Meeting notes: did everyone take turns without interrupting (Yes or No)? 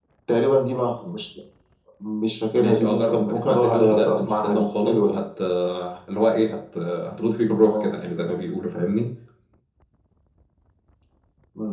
No